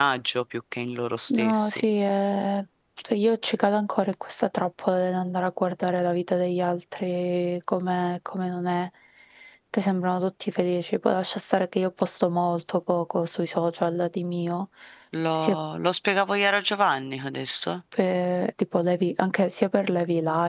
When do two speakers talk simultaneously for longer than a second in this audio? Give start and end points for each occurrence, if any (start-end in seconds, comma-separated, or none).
none